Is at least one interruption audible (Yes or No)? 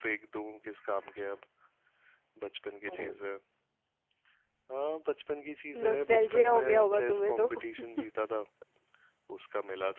Yes